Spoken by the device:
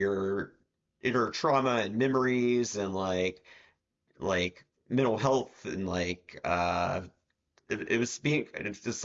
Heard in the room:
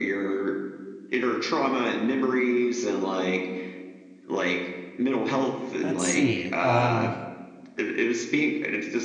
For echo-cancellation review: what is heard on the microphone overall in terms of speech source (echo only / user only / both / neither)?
both